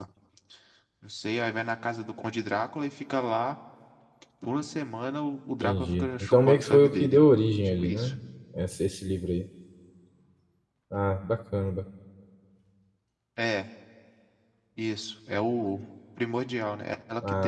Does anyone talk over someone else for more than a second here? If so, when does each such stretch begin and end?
5.6-7.2

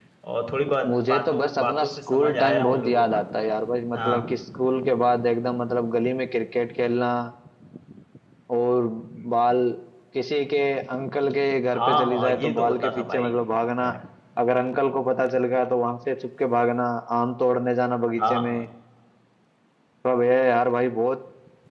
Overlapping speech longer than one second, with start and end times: 0.9-3.2, 11.8-13.3

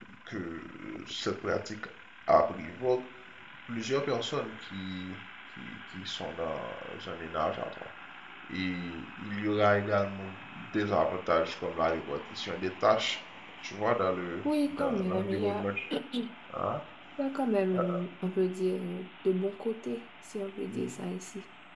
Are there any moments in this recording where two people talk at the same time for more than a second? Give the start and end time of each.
14.4-15.7

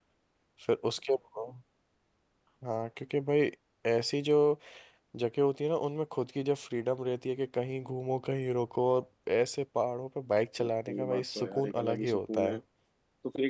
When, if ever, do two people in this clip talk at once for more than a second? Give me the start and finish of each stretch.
10.9-12.6

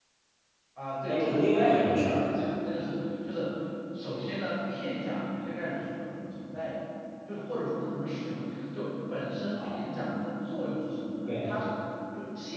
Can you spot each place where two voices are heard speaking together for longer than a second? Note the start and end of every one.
1.1-2.3

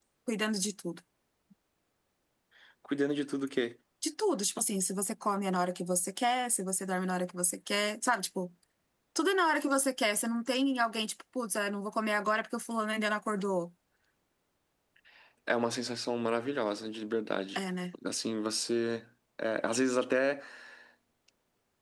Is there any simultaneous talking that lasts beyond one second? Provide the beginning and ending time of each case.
none

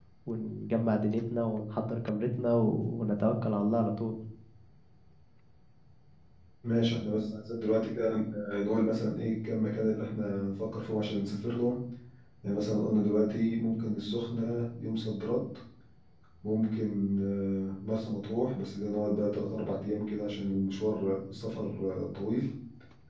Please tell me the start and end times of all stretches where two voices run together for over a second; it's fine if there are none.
none

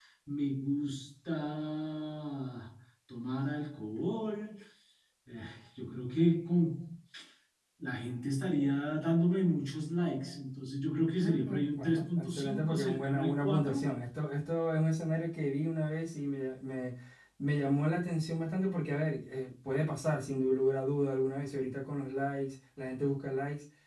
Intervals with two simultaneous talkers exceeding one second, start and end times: 11.2-13.9

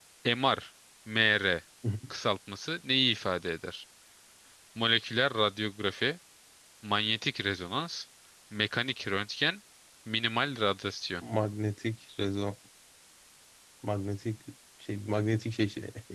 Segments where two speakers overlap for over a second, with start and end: none

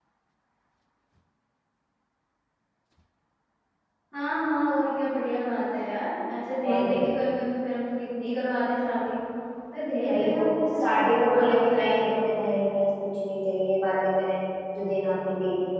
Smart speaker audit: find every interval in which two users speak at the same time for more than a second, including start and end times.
10.8-12.4

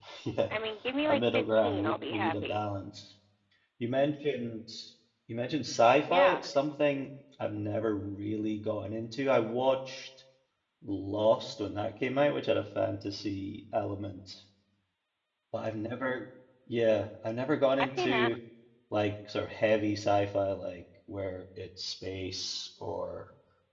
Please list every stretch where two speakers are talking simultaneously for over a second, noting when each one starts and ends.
1.1-2.6

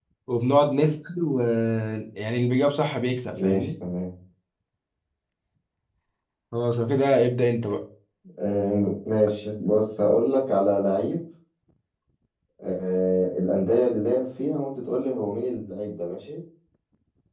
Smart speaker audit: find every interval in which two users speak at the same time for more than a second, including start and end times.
none

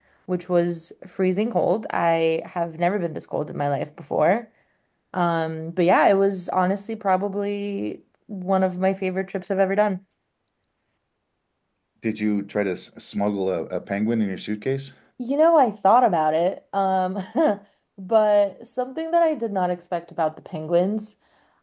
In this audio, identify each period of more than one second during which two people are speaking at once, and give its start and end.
none

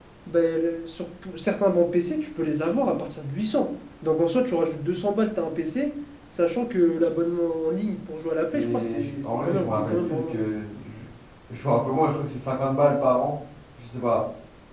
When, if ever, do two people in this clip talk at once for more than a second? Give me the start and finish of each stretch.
8.5-10.4

